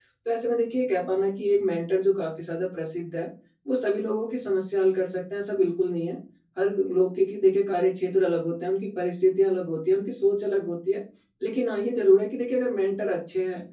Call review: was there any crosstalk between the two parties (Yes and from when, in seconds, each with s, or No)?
No